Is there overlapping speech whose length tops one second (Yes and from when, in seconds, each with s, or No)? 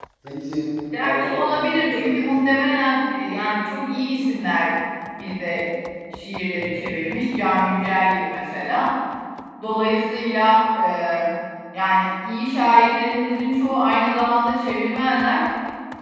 Yes, from 1.0 s